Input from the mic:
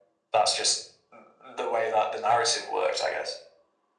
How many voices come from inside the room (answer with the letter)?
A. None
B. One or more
A